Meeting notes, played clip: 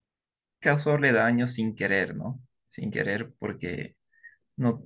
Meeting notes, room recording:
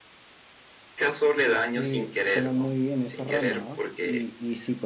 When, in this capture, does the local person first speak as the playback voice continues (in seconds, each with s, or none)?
1.7 s